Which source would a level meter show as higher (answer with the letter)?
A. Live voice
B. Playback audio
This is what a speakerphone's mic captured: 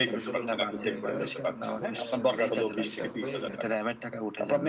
B